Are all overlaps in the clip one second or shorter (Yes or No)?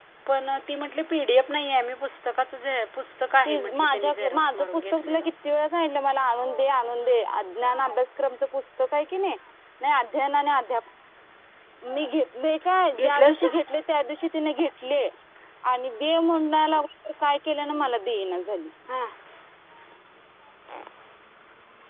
No